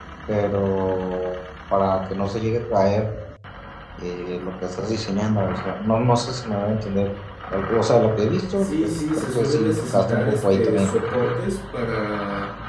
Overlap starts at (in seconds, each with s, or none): 8.6 s